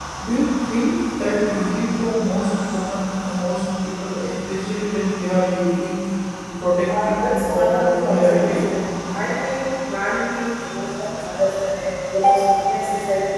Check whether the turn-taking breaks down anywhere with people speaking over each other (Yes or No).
Yes